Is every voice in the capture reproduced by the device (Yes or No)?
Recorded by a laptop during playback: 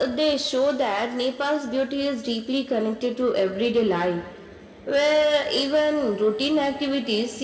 Yes